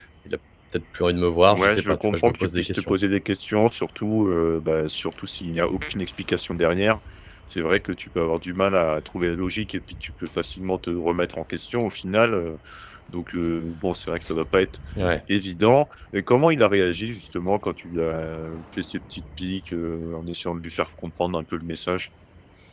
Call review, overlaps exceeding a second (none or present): present